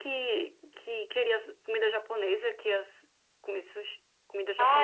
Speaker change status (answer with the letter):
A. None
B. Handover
B